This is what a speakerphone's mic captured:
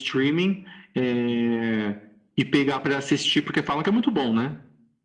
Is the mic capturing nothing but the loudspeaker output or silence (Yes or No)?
Yes